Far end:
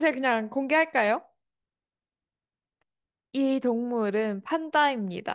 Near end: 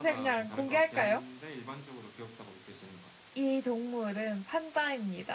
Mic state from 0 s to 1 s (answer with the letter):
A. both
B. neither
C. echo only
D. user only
A